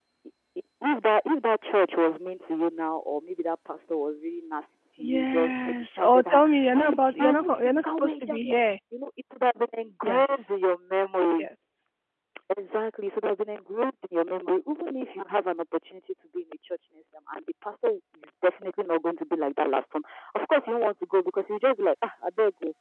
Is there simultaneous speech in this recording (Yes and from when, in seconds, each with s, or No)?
Yes, from 5.0 s